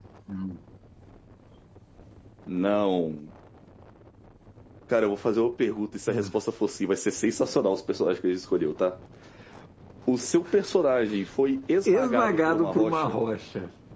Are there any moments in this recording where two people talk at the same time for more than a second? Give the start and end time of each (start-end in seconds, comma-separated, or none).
11.9-13.1